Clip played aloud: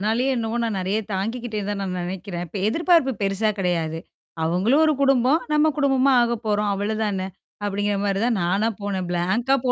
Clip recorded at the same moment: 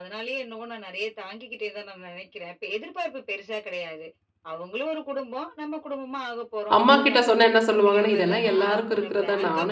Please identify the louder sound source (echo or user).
user